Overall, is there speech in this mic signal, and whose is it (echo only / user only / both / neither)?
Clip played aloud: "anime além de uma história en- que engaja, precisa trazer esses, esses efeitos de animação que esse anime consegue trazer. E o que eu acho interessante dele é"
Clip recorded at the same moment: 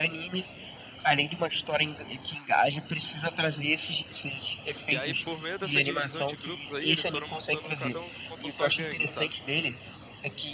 both